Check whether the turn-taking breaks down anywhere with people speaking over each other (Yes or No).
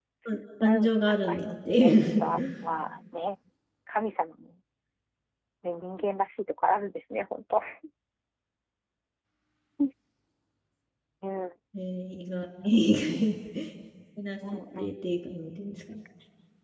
Yes